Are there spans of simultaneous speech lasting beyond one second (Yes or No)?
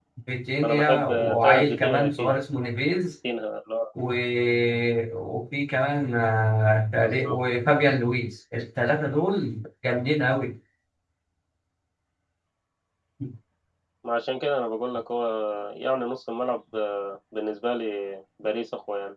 Yes